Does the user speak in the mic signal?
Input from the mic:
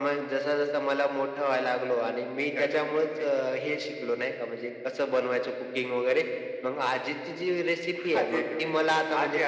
No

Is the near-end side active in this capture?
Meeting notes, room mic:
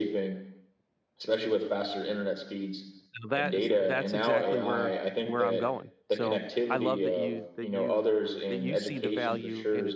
Yes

